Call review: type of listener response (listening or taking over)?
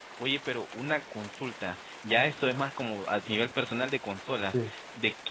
listening